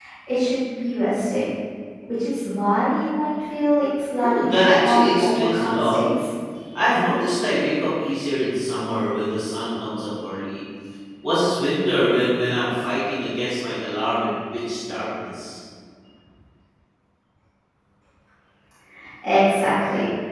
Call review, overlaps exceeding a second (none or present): present